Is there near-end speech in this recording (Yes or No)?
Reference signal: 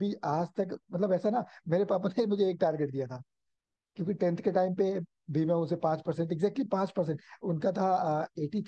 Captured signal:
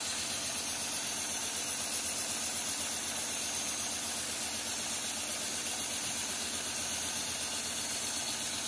No